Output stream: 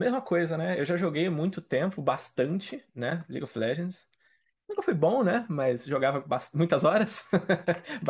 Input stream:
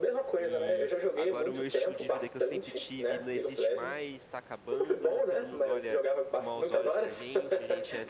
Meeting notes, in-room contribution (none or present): present